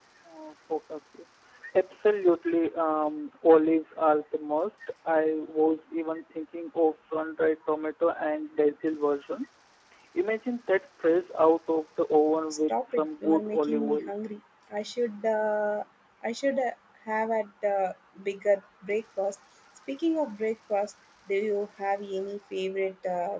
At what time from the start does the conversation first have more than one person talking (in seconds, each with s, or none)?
12.5 s